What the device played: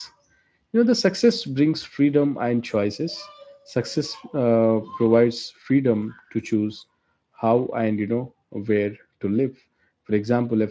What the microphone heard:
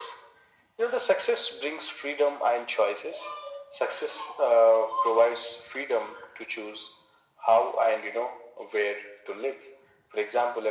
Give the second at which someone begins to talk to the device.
none

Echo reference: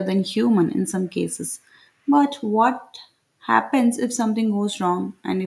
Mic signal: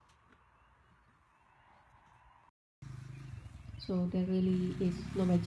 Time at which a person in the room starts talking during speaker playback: 3.8 s

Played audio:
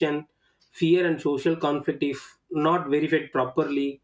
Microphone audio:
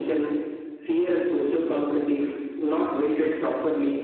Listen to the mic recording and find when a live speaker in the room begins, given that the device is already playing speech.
none

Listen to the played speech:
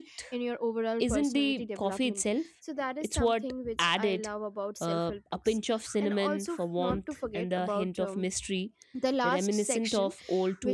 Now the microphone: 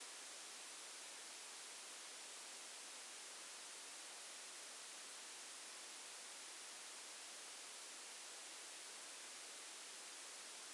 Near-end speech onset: none

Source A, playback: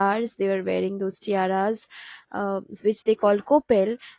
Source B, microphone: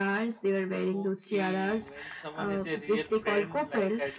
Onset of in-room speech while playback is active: 0.9 s

